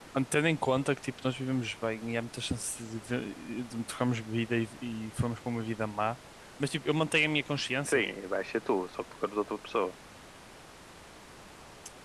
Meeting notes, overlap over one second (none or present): none